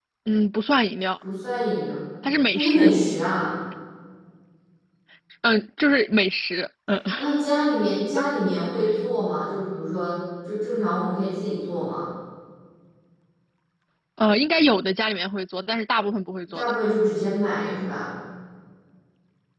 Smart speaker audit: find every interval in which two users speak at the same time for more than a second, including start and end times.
none

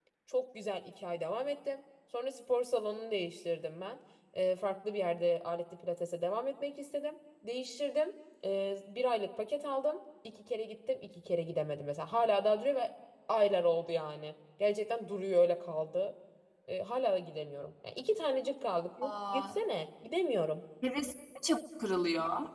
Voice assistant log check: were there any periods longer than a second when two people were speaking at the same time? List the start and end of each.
none

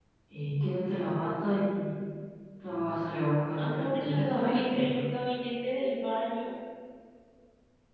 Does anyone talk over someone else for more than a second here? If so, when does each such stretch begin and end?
3.6-5.0

